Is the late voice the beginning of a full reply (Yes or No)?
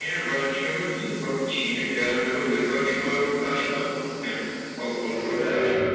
Yes